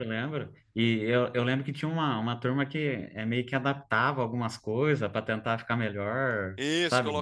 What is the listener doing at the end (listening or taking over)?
taking over